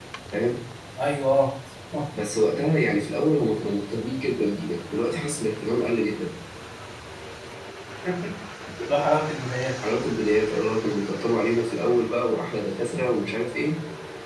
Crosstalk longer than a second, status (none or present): none